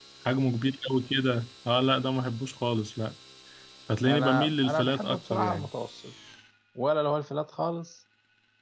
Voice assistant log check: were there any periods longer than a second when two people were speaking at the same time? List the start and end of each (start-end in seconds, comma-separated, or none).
4.1-5.7